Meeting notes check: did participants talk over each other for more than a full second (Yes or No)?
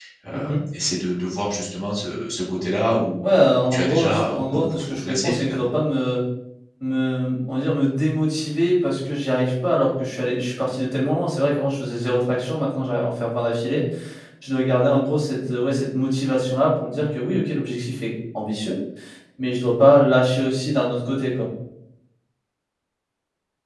Yes